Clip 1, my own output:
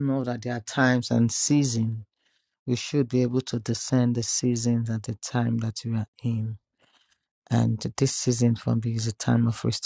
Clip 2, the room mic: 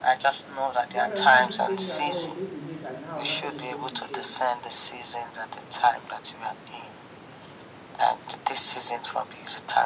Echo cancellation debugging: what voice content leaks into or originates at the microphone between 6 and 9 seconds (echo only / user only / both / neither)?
echo only